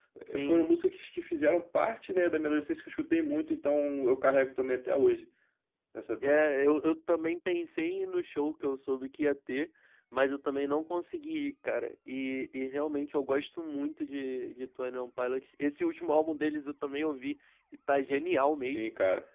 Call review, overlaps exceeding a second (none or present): none